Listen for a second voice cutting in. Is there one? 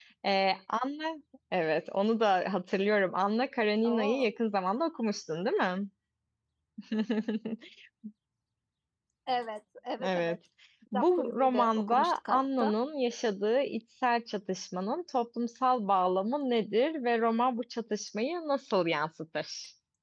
Yes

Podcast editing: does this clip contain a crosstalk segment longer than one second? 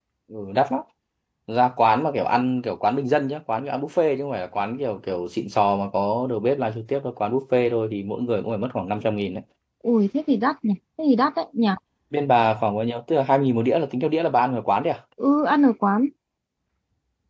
No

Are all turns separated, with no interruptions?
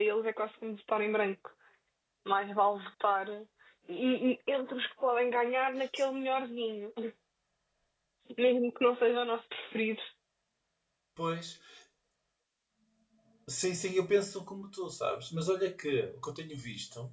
Yes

